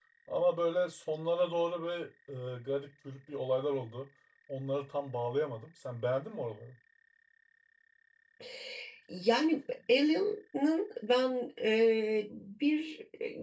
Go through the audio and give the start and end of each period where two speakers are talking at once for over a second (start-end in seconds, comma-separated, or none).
none